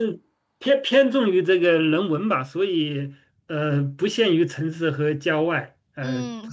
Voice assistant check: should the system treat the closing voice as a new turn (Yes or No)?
Yes